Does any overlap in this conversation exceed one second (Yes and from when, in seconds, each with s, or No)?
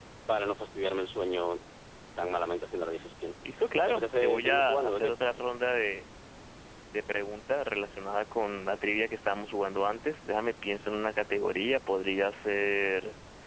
Yes, from 3.9 s